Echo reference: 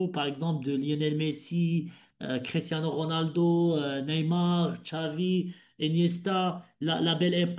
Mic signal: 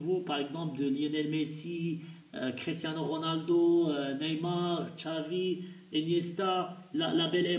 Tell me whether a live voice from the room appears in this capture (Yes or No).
No